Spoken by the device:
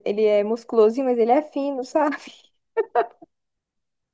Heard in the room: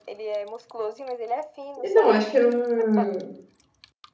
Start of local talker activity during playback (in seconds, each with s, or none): 1.8 s